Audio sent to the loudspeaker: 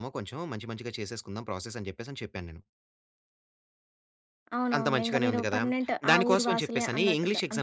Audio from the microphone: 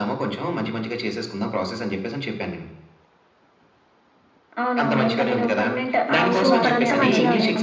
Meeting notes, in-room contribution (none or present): present